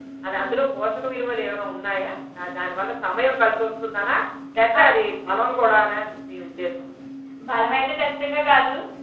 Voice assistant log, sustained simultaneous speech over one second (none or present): none